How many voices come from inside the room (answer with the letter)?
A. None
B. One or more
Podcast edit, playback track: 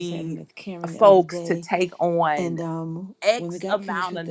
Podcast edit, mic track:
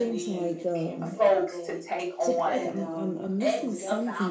B